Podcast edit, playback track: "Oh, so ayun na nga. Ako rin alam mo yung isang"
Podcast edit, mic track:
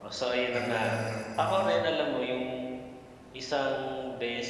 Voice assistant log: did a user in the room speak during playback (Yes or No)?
Yes